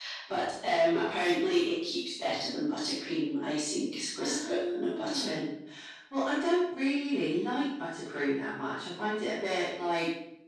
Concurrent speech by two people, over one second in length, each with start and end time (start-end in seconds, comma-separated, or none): 4.2-5.4